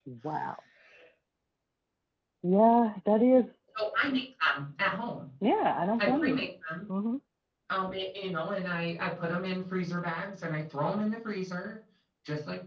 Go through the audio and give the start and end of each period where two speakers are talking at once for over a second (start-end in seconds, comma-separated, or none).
none